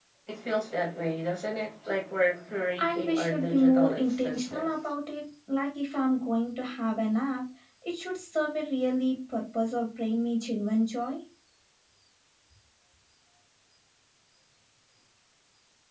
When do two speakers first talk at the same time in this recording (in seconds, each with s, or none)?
2.8 s